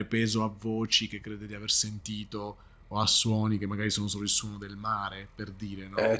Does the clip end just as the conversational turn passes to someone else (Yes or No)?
Yes